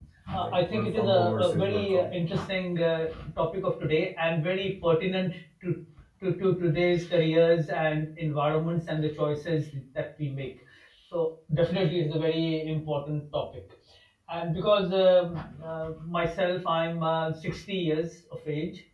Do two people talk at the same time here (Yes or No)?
Yes